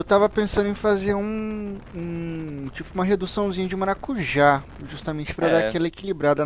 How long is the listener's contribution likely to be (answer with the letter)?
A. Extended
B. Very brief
B